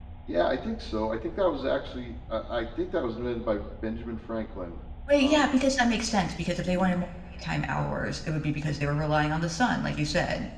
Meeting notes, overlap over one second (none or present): none